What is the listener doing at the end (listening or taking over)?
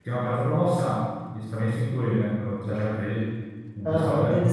taking over